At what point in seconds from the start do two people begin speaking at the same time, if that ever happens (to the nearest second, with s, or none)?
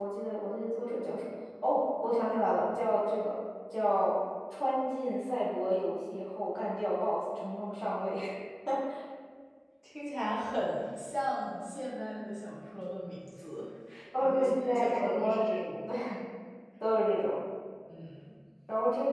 14 s